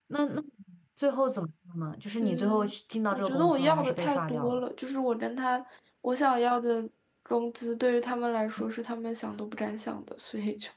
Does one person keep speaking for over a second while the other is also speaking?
Yes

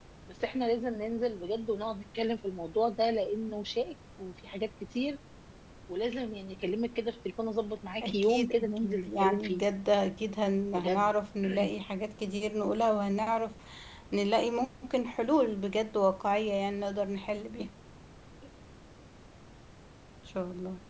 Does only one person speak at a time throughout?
No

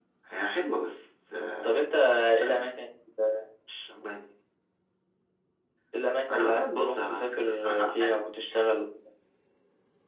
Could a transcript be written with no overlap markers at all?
No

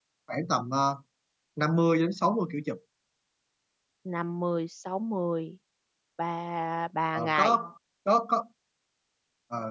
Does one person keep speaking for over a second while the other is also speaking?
No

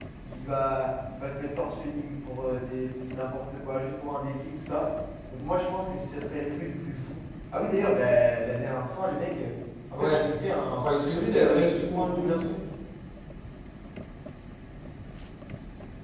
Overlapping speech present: Yes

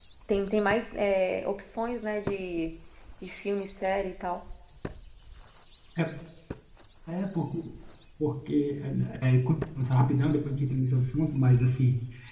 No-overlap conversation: Yes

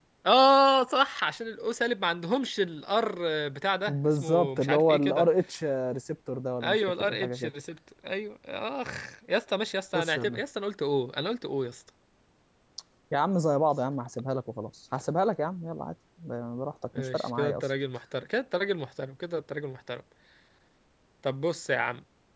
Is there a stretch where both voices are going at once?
Yes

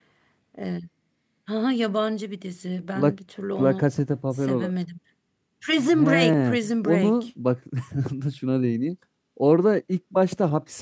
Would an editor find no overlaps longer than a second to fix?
No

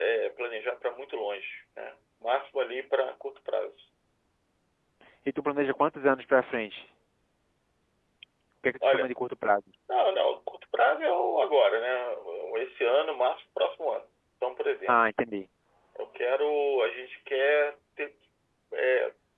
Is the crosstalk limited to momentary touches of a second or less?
Yes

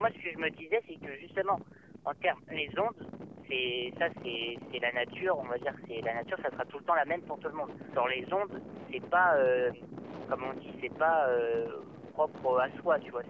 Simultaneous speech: No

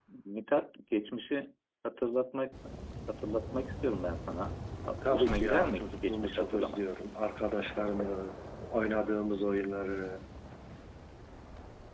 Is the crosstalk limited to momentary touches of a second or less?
No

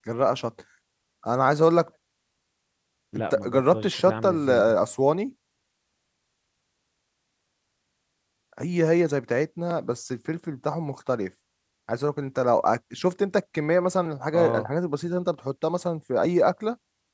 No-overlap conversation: No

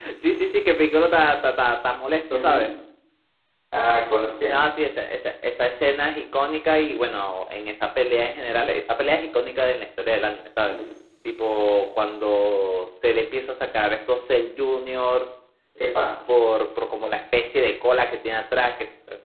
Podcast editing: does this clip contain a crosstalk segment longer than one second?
No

